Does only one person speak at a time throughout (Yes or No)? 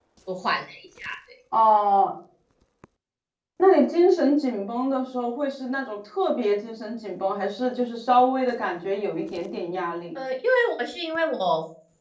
Yes